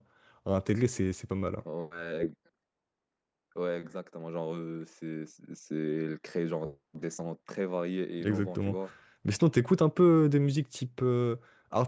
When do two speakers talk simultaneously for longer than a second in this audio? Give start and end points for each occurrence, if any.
none

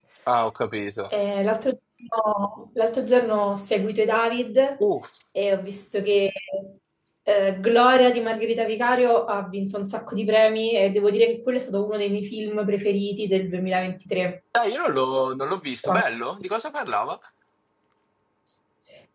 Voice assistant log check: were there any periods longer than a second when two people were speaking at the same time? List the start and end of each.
none

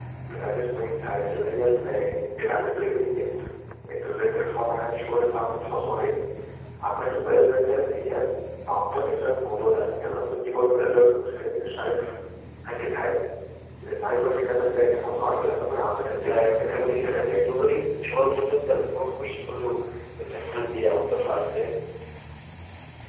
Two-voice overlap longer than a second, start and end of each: 16.2-17.5

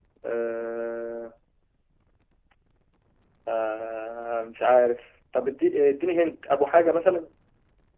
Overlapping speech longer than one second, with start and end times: none

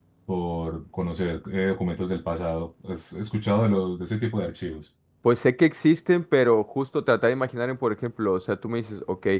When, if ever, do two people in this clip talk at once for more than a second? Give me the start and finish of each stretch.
none

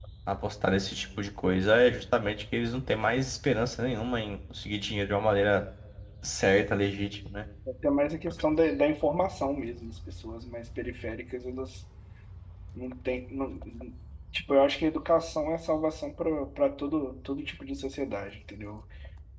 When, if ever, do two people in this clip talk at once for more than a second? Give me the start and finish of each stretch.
none

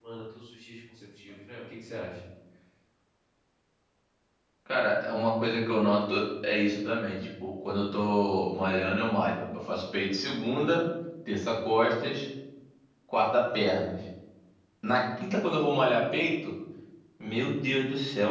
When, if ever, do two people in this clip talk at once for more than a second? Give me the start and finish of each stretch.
none

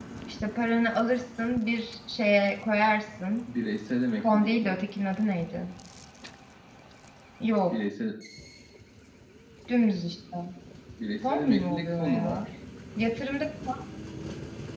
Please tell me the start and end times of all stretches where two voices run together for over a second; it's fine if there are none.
11.2-12.4

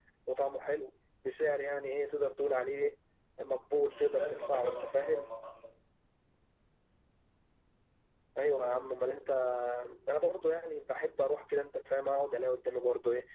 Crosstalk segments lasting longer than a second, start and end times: 3.9-5.3

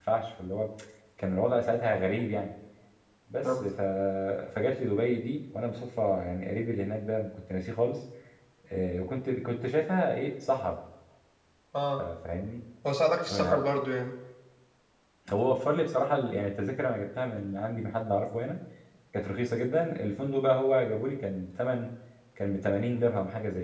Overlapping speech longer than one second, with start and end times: none

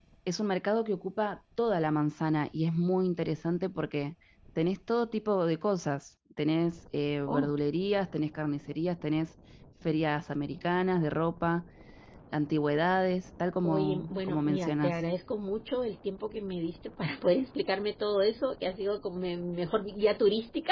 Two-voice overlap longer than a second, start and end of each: 13.6-15.0

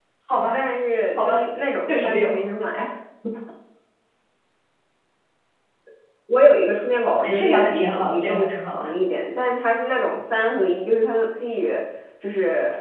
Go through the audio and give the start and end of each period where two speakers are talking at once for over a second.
7.2-8.9

